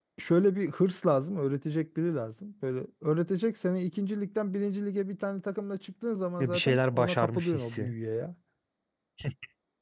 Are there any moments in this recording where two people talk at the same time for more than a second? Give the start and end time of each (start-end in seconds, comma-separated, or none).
6.4-7.9